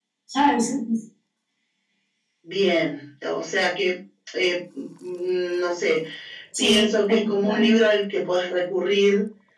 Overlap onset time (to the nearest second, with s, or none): 7 s